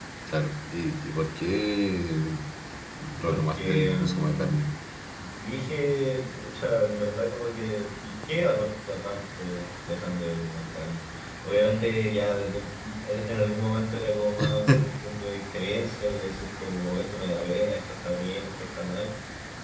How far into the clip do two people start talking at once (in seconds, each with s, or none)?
3.2 s